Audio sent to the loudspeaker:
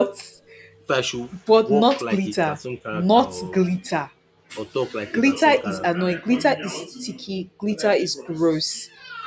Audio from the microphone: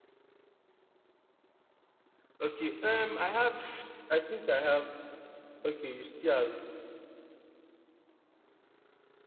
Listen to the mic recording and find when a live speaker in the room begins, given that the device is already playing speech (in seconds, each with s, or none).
2.4 s